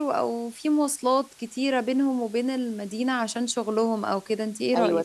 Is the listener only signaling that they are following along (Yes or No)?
No